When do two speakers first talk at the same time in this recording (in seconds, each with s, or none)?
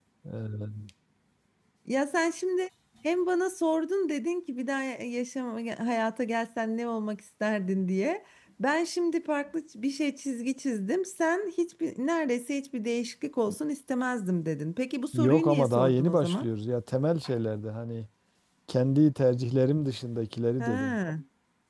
15.1 s